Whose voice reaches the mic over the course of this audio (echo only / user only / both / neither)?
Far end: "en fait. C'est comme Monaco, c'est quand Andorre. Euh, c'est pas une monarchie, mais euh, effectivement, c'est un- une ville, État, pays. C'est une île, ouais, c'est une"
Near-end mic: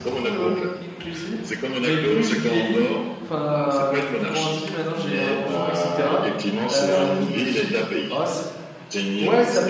both